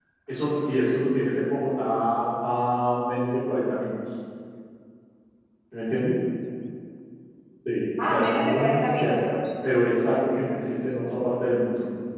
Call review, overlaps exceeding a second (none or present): present